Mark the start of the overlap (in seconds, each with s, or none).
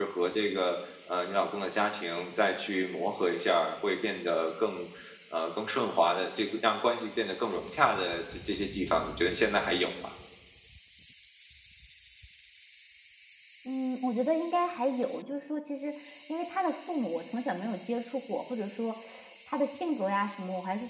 none